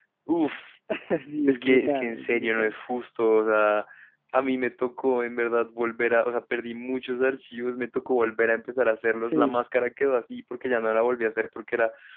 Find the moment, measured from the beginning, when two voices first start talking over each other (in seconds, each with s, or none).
1.5 s